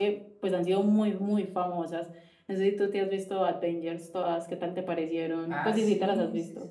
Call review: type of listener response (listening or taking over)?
taking over